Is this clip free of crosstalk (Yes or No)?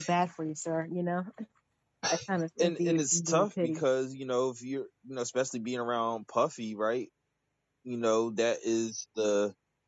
No